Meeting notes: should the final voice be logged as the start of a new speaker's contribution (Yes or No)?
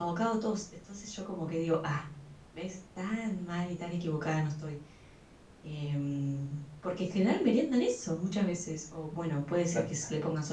No